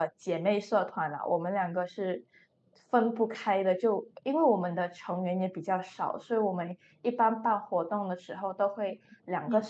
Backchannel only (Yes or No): Yes